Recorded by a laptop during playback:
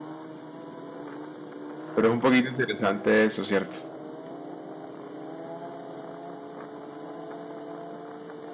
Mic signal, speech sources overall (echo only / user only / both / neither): user only